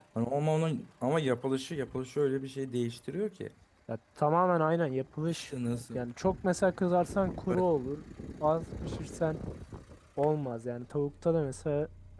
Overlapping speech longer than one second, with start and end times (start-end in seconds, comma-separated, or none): none